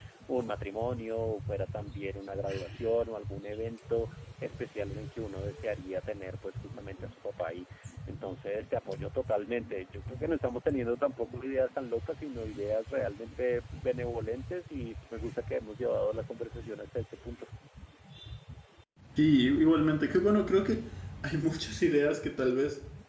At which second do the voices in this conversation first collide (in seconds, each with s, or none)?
none